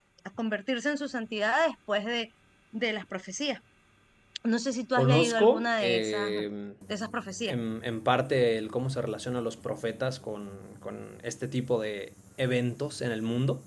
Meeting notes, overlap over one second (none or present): present